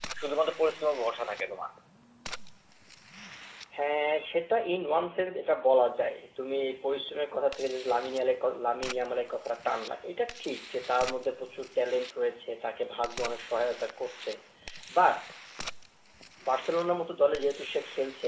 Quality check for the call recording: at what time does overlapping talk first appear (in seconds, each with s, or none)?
none